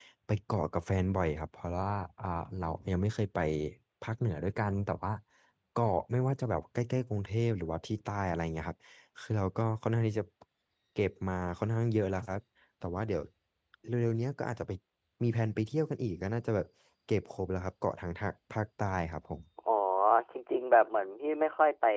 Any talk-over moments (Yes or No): No